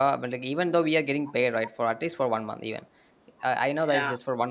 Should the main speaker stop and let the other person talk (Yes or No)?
No